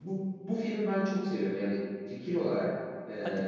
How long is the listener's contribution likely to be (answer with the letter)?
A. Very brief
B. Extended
A